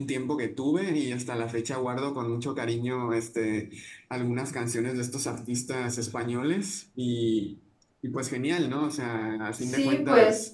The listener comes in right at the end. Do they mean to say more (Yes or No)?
Yes